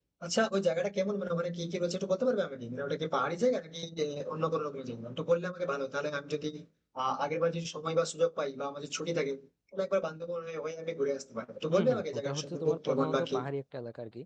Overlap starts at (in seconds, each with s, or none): 11.7 s